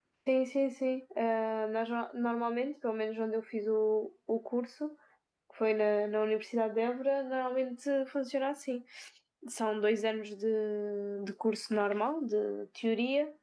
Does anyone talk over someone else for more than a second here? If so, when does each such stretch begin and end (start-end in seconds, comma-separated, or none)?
none